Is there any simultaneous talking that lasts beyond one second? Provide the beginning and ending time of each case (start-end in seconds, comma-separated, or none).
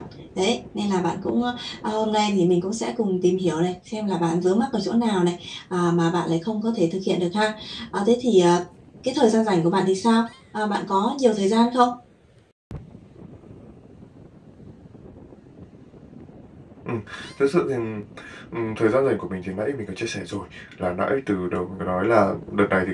none